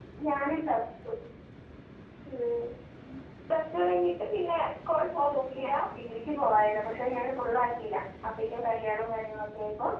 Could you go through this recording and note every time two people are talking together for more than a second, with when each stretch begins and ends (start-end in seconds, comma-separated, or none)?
none